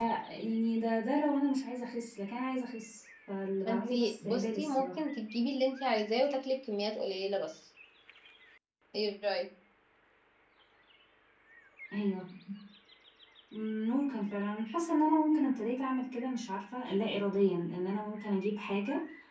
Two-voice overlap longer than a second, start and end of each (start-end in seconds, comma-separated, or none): 3.7-5.0